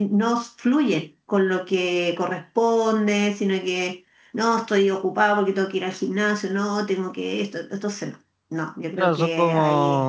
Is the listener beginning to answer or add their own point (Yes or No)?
Yes